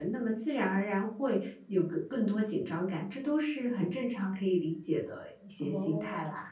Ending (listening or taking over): taking over